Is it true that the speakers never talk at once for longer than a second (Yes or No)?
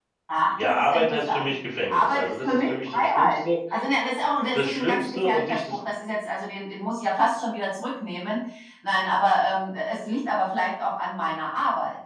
No